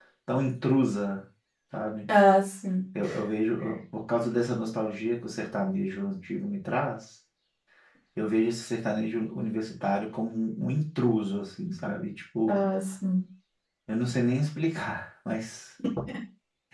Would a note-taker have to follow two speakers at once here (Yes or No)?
No